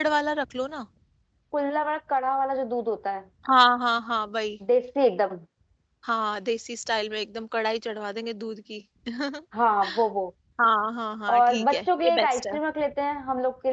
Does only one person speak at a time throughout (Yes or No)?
No